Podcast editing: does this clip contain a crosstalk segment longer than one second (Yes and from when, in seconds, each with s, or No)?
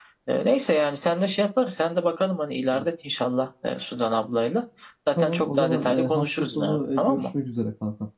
Yes, from 5.2 s